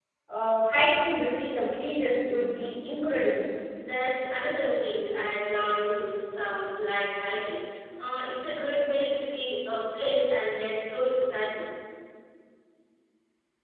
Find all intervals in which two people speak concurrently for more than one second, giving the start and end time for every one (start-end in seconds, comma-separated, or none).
none